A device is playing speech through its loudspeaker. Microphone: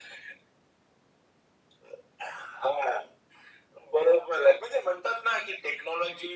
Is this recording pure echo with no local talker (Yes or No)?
Yes